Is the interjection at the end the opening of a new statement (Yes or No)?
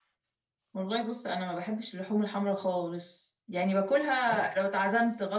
No